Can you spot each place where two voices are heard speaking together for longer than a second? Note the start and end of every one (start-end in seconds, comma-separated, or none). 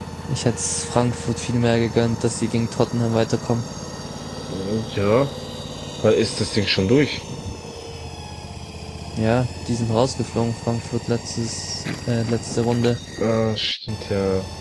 none